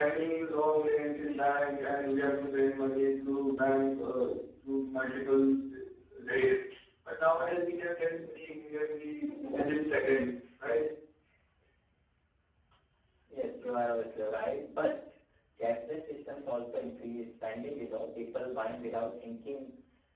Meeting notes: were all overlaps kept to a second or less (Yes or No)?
Yes